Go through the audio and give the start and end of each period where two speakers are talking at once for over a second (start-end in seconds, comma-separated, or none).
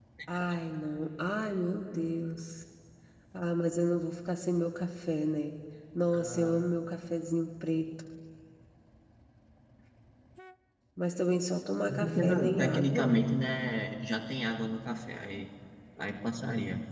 11.9-13.2